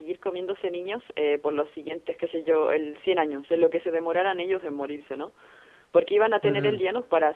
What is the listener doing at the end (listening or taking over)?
listening